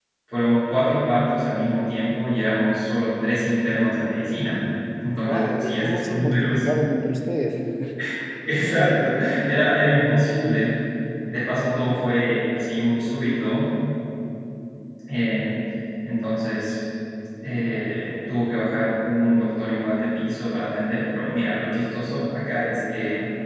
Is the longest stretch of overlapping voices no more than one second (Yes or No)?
No